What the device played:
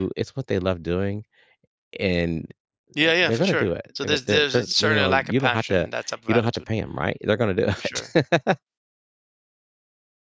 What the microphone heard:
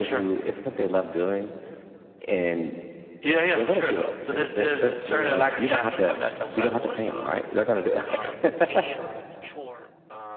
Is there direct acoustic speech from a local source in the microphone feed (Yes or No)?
Yes